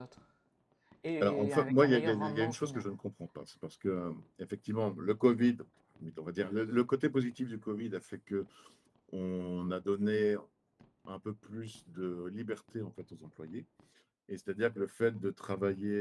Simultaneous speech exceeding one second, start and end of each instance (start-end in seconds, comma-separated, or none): 1.2-2.9